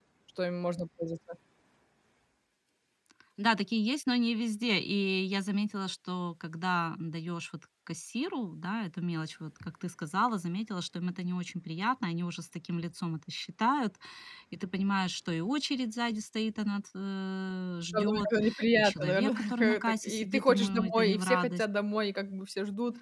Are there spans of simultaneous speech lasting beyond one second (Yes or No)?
Yes